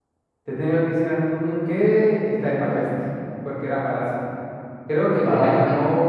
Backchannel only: Yes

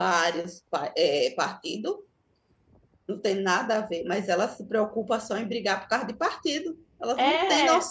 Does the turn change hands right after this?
Yes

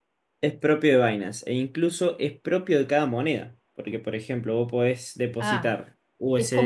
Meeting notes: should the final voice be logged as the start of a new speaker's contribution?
Yes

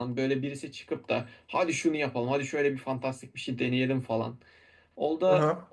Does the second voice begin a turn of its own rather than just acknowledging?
No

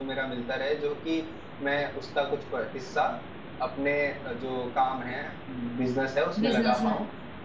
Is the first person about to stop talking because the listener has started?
No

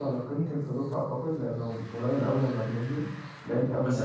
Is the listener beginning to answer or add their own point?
Yes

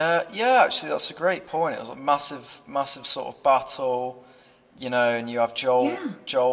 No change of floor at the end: Yes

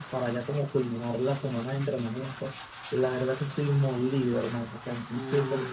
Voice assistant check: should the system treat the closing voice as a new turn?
Yes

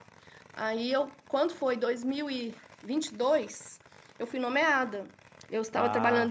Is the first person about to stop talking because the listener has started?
No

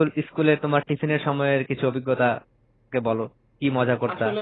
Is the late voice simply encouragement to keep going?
No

